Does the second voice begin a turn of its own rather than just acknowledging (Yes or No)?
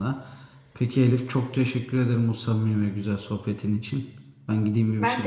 No